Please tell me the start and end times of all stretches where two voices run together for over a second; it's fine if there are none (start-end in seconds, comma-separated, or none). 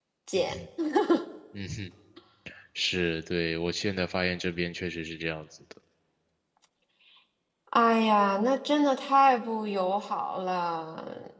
none